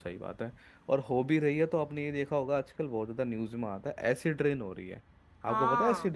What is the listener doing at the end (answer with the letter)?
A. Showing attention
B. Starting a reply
B